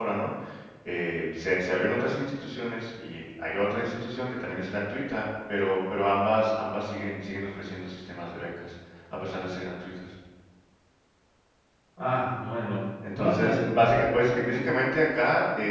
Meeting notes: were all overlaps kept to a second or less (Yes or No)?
No